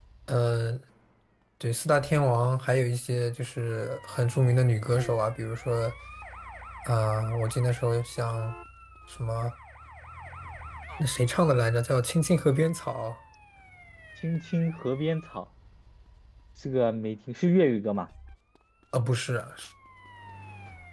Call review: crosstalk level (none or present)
none